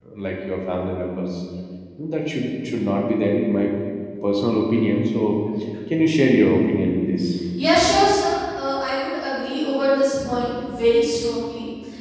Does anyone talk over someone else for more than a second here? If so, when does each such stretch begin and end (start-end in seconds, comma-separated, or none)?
none